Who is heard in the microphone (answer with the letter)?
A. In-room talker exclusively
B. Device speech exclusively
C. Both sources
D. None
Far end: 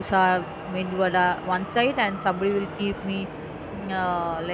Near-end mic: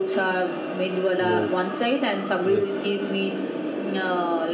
C